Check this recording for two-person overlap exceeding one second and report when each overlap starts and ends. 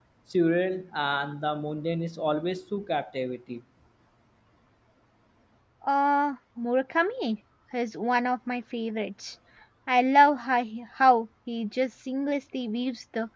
none

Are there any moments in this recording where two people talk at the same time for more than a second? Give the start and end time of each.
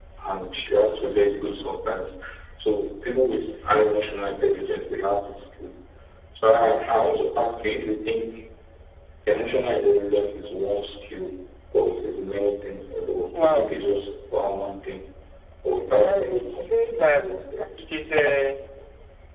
15.9-17.2

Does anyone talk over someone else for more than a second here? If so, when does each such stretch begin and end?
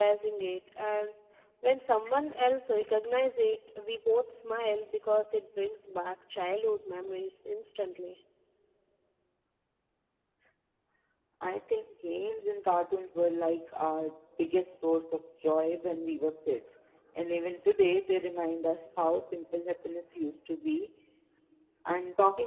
none

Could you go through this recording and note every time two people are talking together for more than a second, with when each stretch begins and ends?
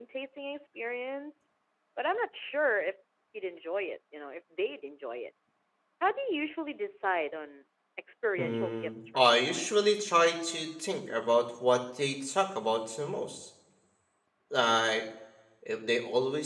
8.4-9.7

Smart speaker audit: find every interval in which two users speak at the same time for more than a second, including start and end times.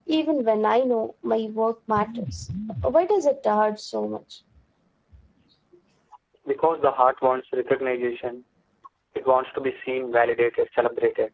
none

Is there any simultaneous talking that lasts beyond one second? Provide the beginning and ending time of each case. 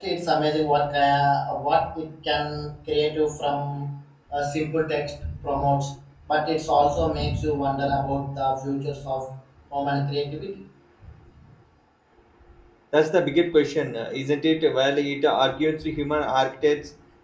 none

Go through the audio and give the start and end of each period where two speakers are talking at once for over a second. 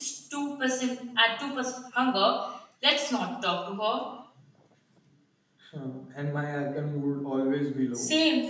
none

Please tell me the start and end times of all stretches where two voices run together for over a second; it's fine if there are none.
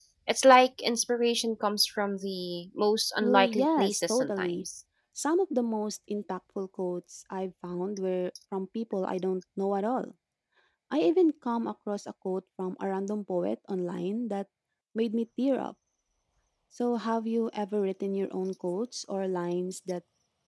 3.2-4.7

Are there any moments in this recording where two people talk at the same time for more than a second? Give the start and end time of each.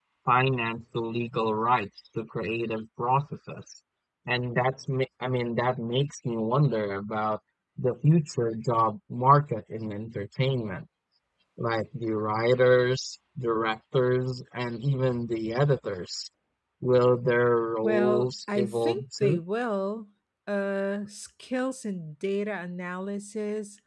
17.8-19.4

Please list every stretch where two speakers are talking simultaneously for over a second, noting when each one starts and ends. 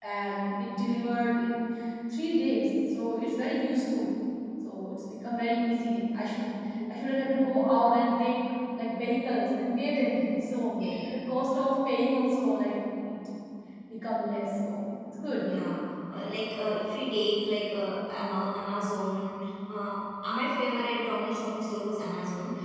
none

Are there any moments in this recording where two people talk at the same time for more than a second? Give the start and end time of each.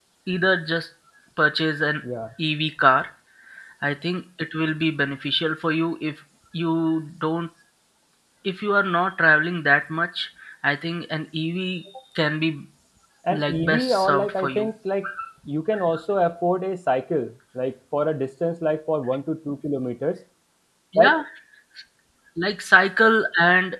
13.3-14.7

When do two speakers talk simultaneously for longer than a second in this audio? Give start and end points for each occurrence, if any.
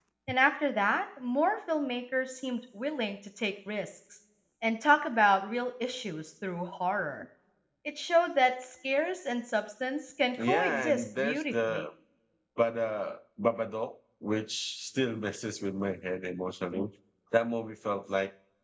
10.4-11.8

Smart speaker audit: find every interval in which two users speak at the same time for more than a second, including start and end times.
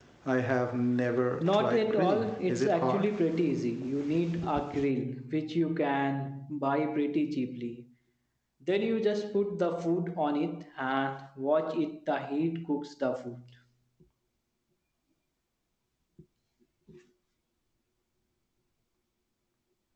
1.4-3.0

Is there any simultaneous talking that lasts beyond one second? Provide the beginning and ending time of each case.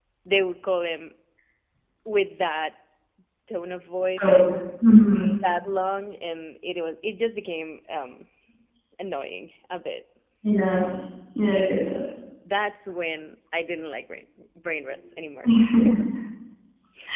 none

